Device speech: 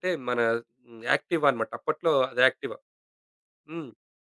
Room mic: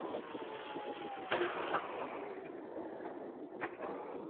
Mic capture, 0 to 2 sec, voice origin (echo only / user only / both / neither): neither